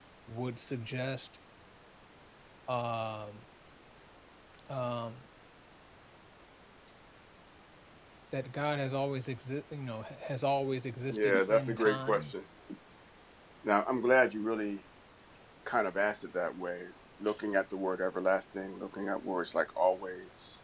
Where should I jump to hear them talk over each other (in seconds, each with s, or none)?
11.1 s